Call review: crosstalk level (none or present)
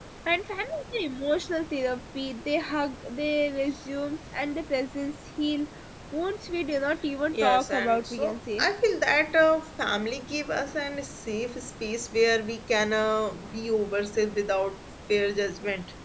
present